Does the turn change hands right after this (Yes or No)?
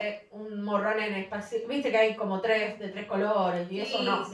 Yes